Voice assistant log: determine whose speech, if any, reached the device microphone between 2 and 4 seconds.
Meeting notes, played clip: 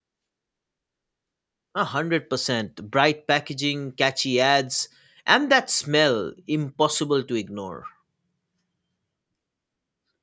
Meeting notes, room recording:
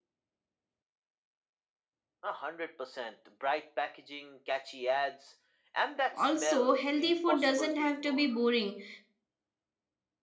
echo only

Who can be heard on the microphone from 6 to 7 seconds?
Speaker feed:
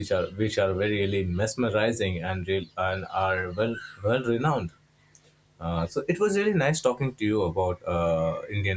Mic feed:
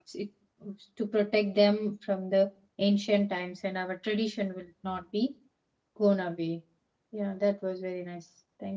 user only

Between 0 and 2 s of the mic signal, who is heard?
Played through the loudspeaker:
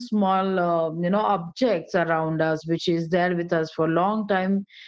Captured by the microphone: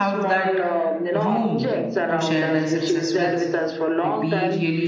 both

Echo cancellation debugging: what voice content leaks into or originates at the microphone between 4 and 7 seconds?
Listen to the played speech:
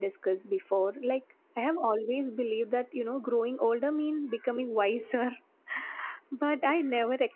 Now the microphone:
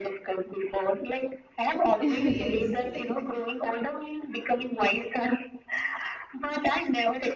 echo only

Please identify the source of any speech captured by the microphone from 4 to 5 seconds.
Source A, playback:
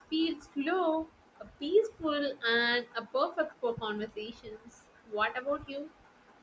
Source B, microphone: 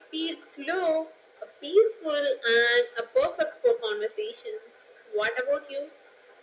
echo only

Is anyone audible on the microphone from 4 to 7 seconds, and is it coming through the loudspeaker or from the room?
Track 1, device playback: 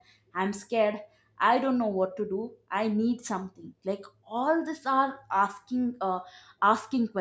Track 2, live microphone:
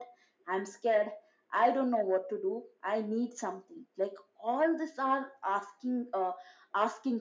echo only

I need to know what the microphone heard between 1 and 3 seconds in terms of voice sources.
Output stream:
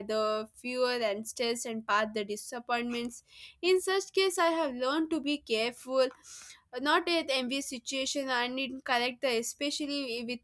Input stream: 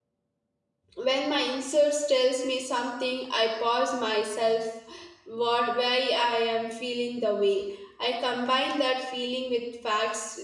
user only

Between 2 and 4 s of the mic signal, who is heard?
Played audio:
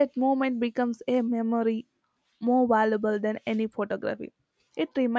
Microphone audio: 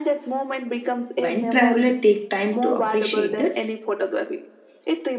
both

